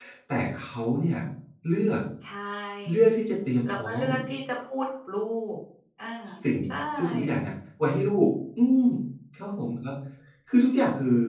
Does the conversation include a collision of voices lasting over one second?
No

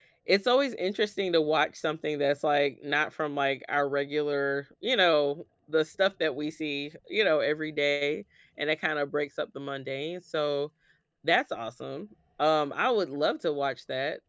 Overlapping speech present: No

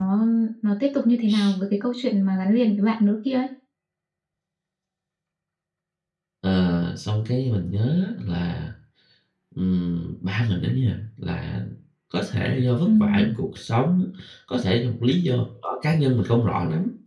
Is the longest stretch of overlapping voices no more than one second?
Yes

